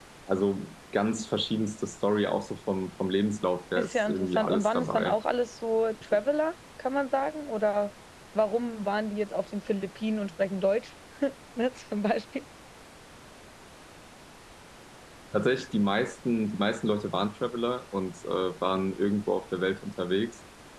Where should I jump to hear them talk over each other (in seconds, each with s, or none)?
3.8 s